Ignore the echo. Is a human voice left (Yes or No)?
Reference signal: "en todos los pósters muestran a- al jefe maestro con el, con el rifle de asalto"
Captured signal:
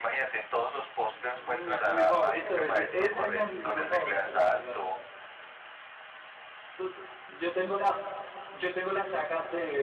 Yes